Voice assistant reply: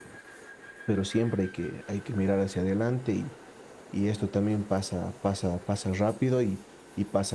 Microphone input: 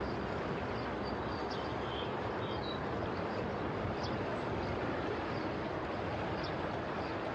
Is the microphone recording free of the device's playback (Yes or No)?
Yes